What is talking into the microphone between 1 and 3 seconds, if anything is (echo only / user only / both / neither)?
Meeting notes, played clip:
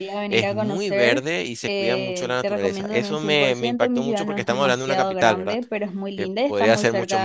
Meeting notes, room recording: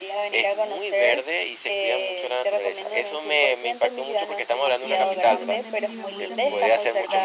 echo only